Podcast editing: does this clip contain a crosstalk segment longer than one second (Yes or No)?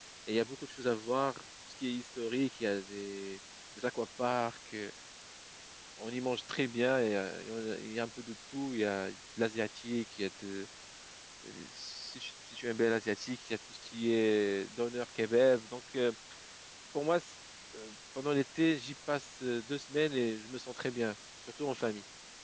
No